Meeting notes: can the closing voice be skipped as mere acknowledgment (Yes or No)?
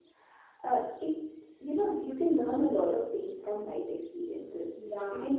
Yes